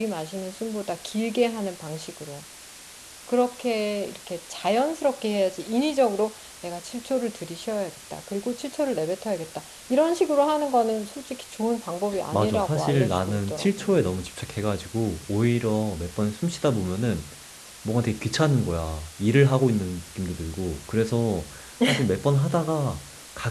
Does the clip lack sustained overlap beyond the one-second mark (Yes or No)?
No